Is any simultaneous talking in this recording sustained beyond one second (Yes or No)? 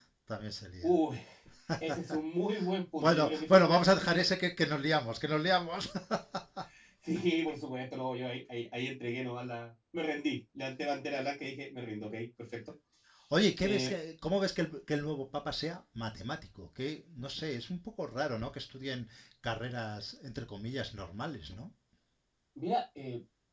Yes